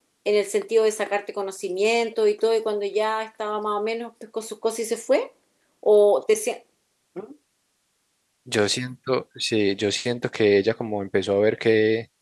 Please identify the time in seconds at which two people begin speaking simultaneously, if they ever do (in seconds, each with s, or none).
none